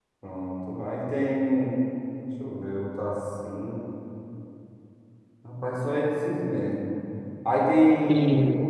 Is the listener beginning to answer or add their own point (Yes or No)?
No